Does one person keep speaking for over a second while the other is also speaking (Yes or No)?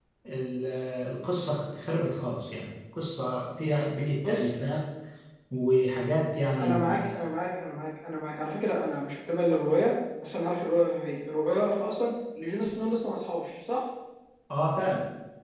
No